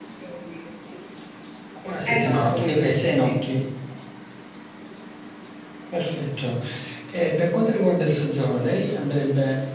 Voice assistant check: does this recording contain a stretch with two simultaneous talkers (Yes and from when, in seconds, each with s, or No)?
Yes, from 2.0 s